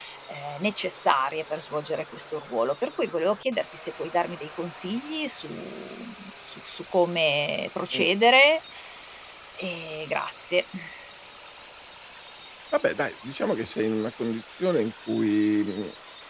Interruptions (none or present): none